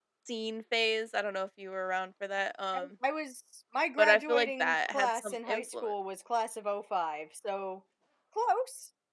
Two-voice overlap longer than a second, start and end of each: 4.0-5.9

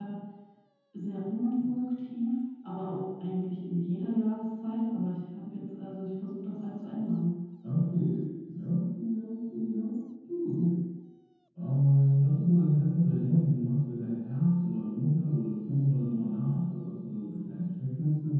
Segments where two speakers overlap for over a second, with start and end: none

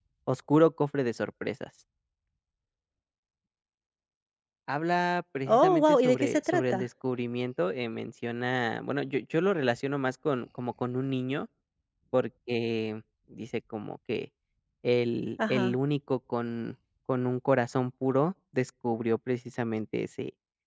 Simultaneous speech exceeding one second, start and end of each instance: 5.5-6.9

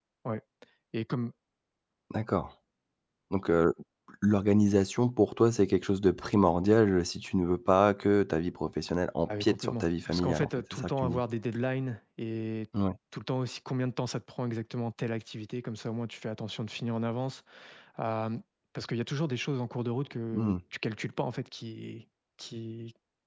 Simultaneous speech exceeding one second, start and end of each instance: 9.4-11.2

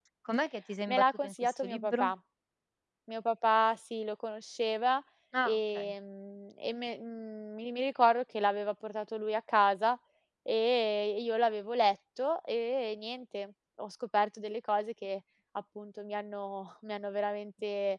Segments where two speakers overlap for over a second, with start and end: 0.9-2.1

